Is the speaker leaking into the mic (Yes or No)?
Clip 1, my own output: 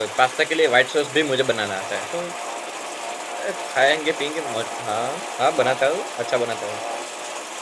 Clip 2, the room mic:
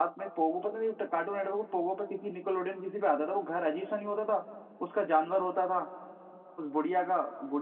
No